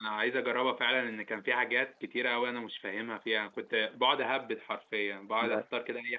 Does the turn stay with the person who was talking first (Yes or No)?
Yes